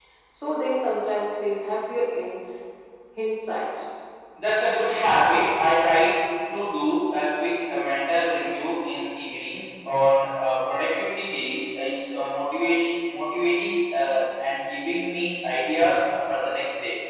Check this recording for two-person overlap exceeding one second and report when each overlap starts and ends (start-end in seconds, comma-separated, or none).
none